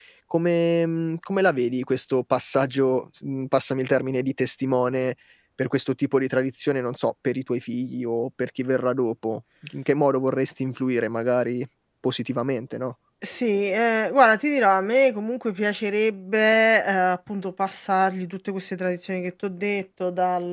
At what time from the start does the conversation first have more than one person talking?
none

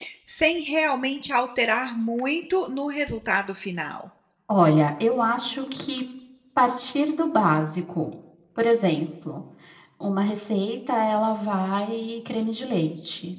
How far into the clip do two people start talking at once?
none

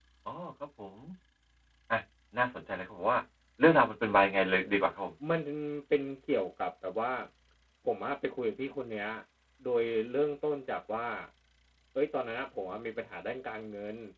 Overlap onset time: none

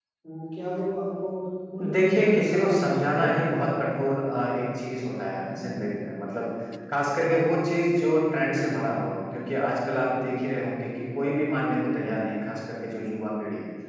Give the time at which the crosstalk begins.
2 s

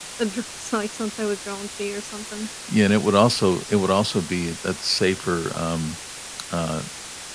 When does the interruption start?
none

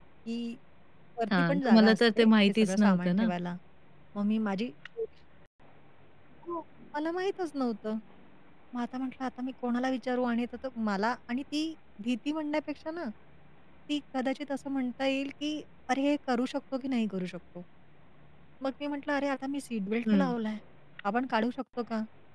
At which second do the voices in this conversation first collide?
1 s

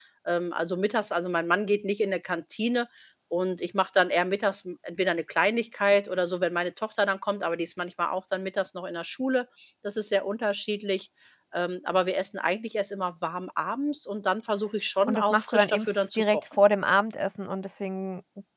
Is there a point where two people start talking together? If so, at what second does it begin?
15 s

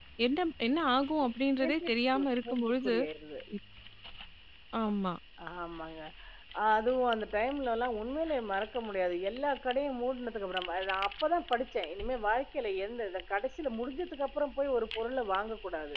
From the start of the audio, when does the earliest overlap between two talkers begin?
2 s

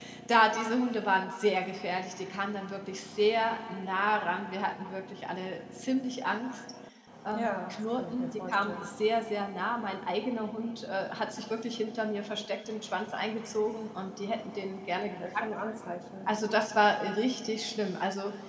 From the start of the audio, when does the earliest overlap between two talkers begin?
7 s

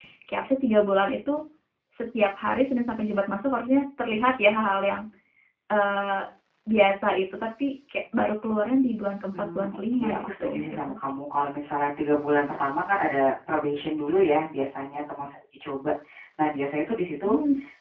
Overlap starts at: 9 s

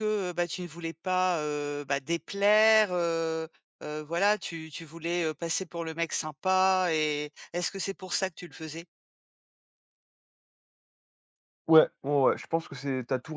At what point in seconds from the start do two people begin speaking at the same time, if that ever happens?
none

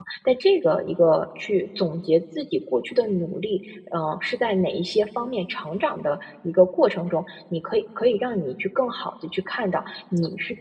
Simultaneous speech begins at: none

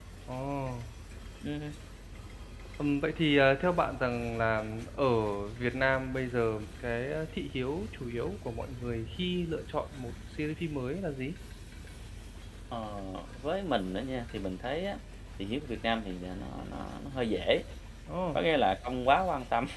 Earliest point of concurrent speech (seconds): none

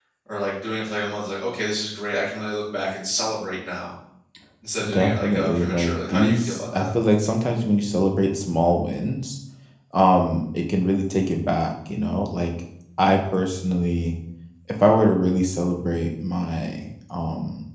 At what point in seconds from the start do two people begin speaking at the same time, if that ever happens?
5 s

